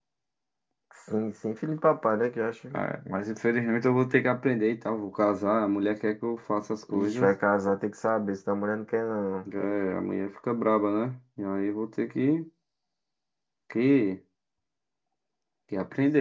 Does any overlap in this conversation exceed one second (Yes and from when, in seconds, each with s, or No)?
No